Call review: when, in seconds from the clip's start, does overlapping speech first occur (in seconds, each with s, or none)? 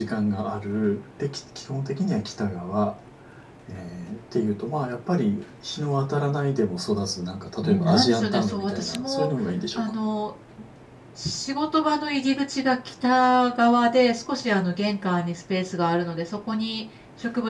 7.6 s